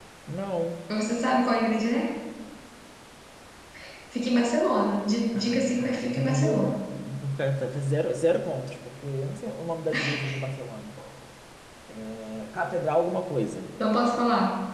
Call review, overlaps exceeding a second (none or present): present